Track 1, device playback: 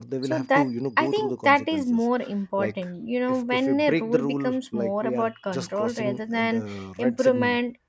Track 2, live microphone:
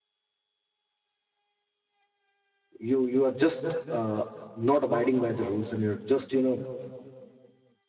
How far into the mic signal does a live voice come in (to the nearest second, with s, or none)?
3 s